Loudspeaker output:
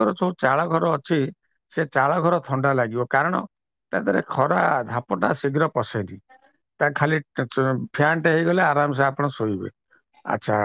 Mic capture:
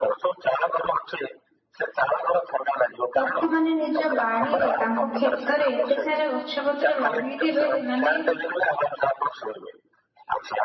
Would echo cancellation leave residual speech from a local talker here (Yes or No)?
Yes